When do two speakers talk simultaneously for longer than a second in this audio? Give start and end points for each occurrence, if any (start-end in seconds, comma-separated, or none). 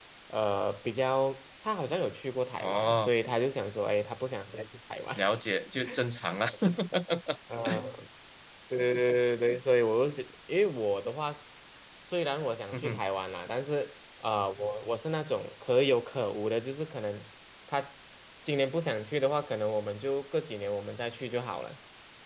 none